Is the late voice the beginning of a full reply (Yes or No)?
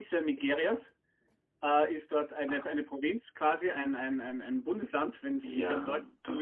Yes